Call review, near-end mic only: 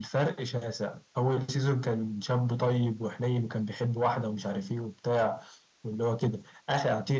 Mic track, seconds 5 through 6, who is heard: echo only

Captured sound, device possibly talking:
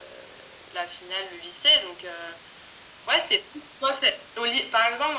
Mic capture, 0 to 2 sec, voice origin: echo only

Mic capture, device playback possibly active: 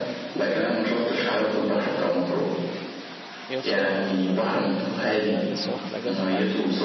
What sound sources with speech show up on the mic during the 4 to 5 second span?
both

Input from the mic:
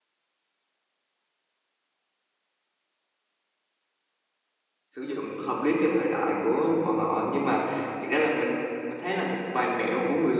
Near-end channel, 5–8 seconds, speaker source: user only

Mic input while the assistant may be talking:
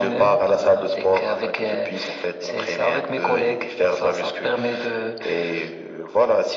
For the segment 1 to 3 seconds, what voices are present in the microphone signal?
echo only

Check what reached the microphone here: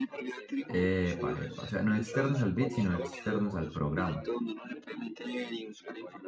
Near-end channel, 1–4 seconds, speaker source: both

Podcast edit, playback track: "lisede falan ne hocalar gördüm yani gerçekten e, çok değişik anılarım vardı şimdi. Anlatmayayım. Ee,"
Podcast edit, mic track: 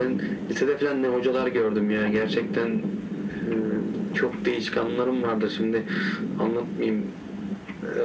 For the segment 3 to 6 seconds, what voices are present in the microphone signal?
echo only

